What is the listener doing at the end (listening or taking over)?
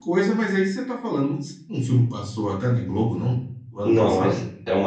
taking over